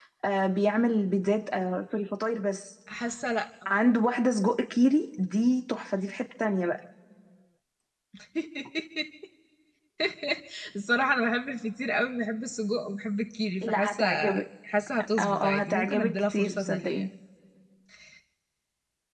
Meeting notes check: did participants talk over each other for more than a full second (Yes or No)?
Yes